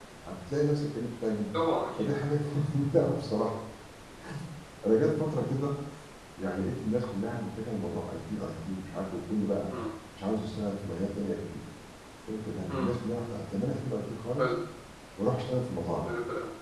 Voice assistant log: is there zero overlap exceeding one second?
Yes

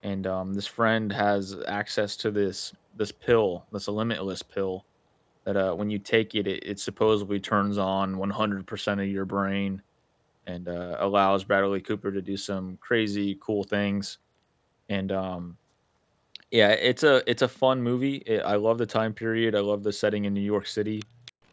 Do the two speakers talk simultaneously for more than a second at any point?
No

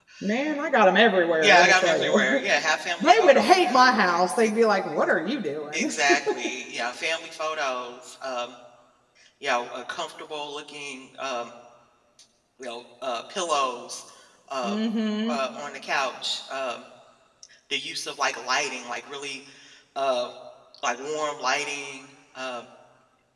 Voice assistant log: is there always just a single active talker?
No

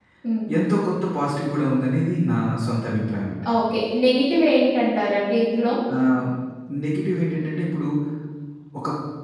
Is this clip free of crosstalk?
Yes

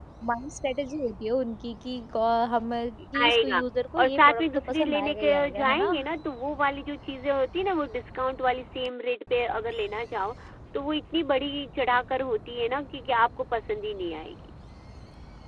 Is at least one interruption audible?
Yes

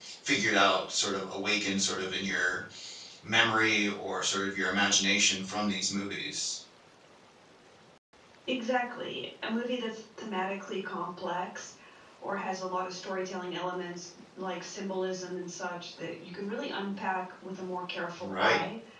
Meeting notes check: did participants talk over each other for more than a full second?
No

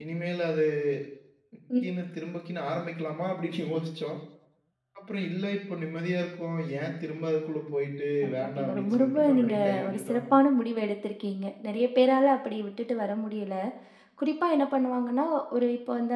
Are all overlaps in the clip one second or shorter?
No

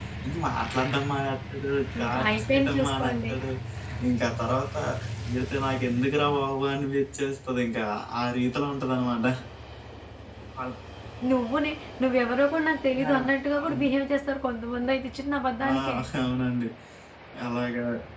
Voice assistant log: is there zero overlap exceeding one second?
No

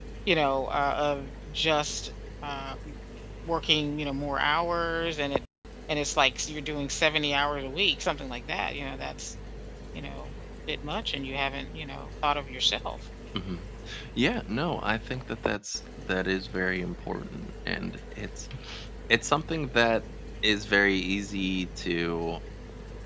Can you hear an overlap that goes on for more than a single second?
No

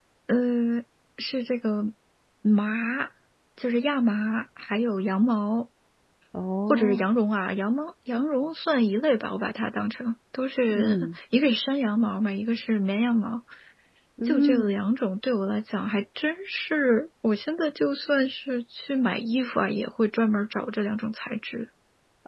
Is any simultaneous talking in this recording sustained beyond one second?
No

